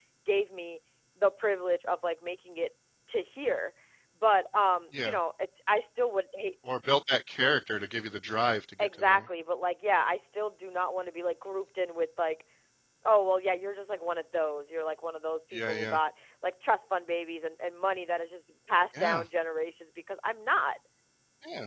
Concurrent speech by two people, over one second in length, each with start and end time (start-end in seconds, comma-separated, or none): none